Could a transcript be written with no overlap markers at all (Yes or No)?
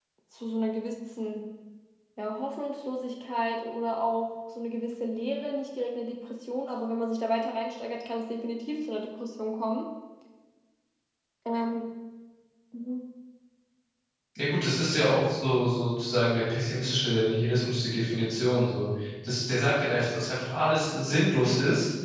Yes